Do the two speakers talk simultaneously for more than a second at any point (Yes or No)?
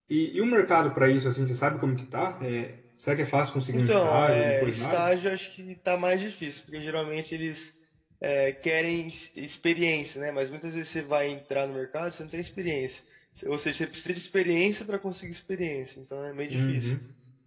Yes